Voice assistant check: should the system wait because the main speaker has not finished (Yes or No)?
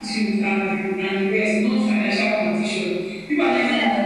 No